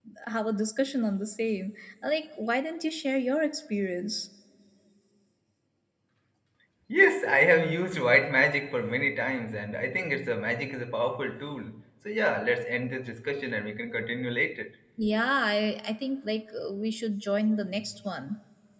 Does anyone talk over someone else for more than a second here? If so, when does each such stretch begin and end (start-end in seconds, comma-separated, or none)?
none